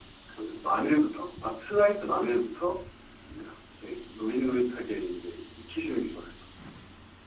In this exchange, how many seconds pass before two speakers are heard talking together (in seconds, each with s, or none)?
none